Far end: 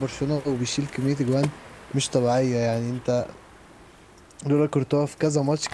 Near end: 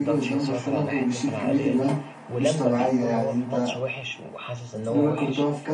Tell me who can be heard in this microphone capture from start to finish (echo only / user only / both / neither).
both